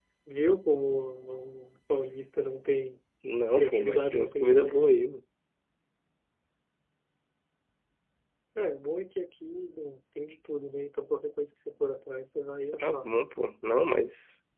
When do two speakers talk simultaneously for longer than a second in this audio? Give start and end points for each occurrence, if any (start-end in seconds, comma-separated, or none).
3.6-4.8